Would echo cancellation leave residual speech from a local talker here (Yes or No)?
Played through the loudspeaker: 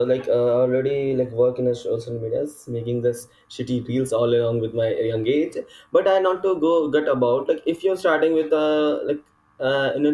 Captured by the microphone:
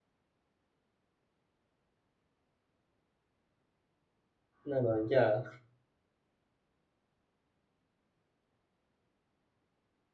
Yes